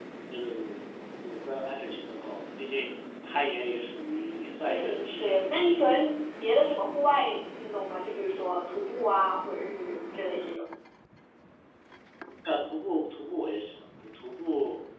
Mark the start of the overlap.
4.6 s

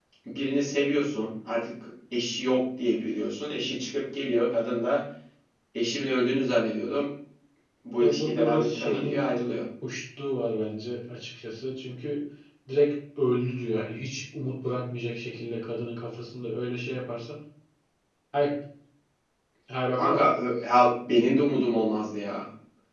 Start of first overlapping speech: 8.0 s

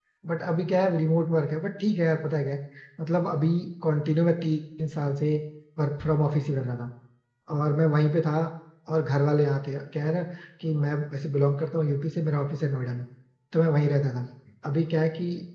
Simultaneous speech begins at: none

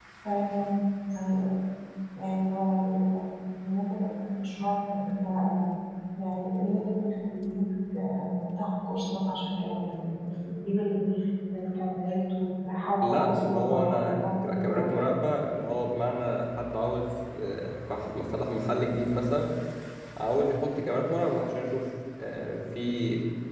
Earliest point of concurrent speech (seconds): 13.0 s

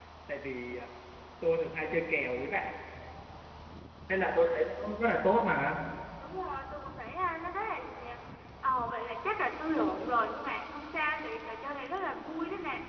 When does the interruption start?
none

